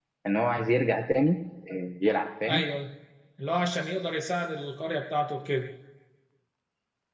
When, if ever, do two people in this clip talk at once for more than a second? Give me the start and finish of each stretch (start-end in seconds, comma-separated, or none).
none